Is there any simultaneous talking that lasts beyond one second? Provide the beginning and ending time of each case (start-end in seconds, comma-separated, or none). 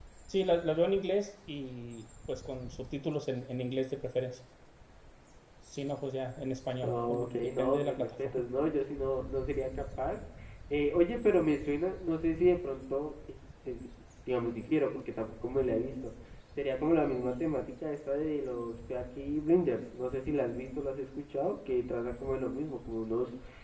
6.8-8.4